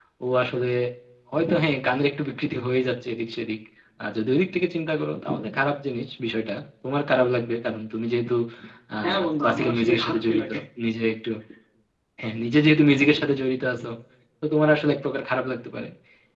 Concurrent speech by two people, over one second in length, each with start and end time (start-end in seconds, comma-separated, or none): 9.0-10.6